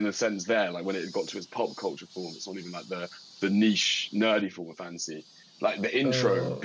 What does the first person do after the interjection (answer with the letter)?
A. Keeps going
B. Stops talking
A